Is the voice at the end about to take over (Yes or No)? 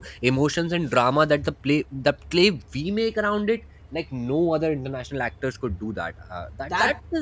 No